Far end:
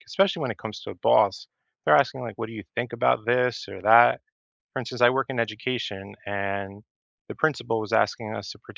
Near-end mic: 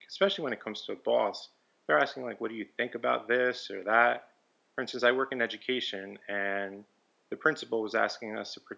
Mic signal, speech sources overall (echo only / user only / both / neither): echo only